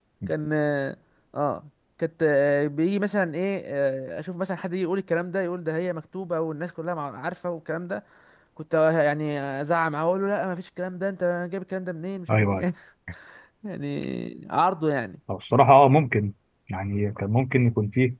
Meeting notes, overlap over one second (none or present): none